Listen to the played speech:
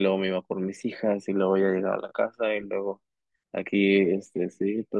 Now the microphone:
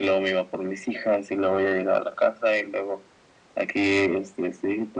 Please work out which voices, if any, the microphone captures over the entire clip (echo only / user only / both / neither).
echo only